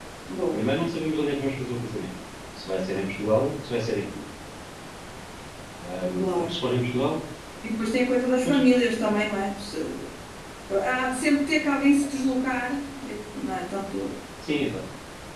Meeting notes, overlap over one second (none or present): none